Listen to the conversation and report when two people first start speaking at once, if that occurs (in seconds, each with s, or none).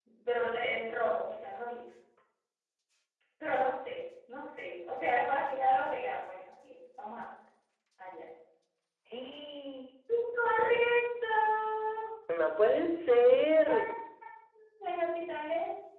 none